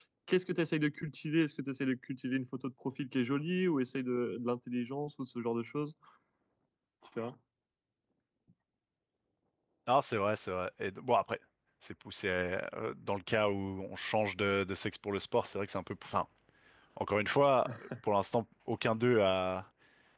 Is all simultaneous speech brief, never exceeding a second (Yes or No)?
Yes